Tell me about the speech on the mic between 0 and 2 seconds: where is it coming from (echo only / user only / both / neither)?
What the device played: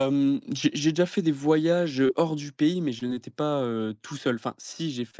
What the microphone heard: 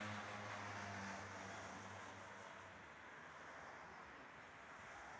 neither